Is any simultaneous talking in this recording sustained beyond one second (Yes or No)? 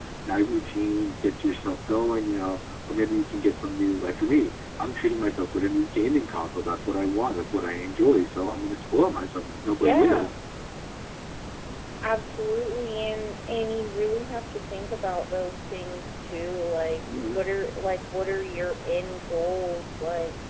No